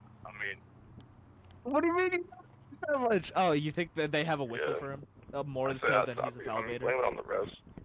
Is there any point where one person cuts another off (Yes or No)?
Yes